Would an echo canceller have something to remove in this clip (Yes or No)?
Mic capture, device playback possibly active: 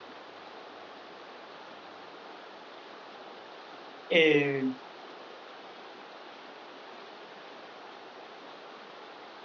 No